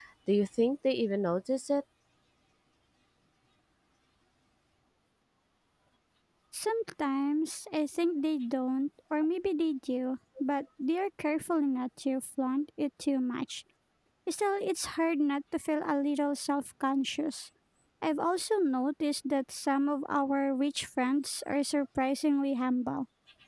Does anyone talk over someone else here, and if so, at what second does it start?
none

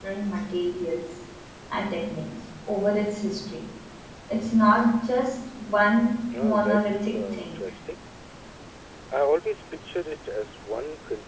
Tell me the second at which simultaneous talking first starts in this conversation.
6.3 s

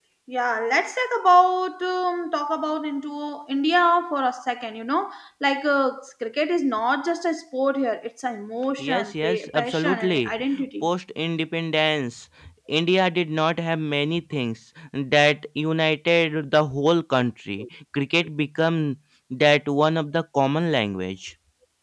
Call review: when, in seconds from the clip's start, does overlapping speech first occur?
8.8 s

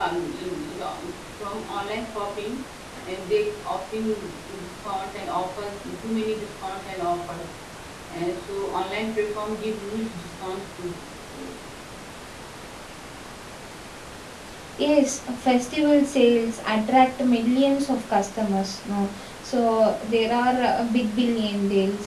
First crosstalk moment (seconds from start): none

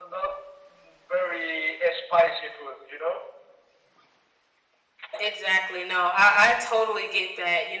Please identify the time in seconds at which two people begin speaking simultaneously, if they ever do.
none

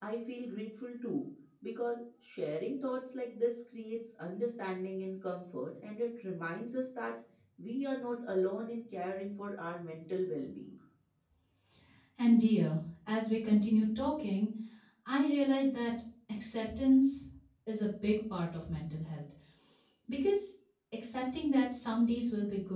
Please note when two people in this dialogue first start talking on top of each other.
none

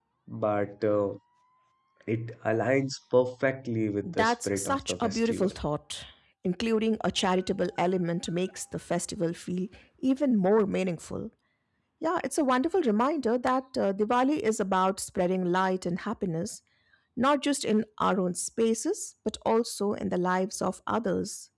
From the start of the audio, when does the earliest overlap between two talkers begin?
4.0 s

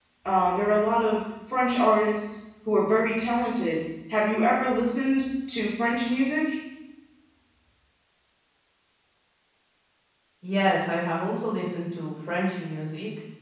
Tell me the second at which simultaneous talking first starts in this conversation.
none

